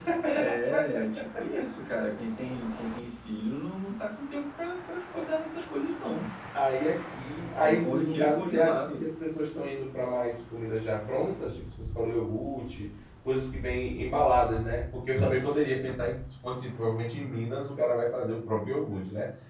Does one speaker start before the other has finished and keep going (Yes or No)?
Yes